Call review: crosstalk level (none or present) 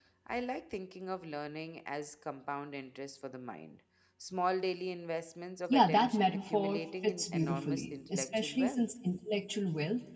present